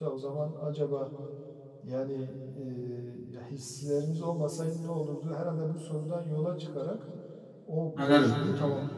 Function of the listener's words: listening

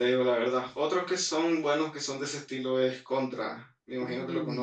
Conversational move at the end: taking over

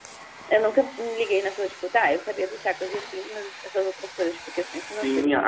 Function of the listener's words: taking over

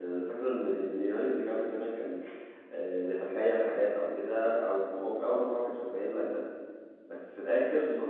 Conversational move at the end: listening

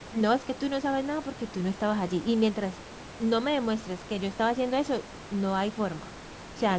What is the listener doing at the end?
taking over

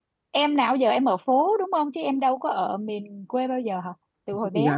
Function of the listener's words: taking over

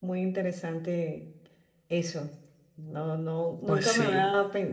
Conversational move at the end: listening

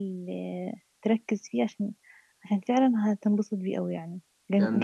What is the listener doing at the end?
taking over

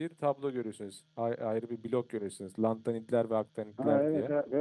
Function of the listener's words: taking over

